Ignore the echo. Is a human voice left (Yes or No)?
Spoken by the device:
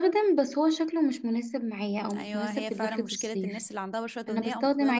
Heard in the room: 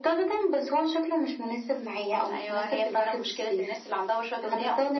No